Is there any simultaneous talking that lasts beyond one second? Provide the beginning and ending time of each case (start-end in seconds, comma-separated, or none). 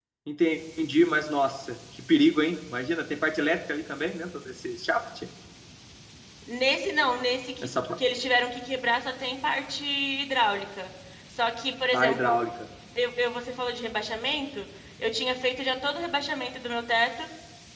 none